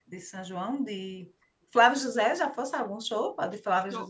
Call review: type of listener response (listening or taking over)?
taking over